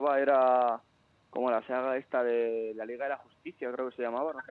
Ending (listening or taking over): taking over